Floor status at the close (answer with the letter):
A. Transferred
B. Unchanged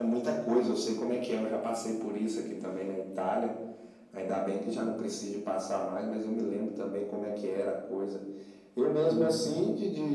B